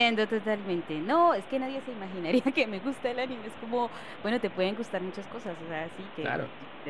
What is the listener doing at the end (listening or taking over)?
listening